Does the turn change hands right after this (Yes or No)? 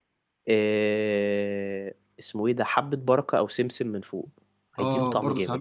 Yes